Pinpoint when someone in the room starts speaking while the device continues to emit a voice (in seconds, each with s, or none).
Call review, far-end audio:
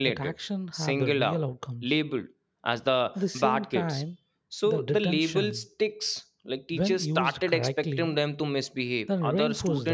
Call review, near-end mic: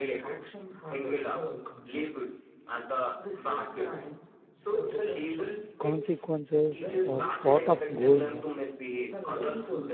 5.8 s